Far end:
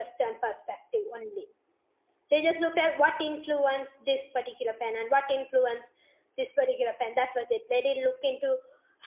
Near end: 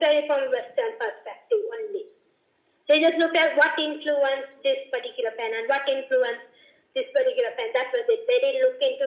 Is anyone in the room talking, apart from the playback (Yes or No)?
No